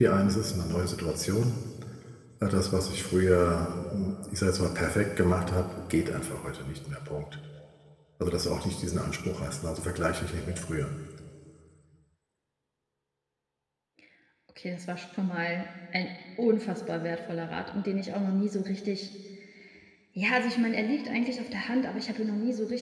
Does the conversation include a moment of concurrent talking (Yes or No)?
No